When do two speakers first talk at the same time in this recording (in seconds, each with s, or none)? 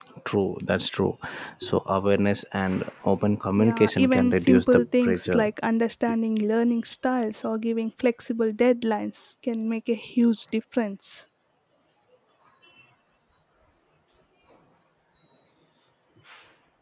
3.6 s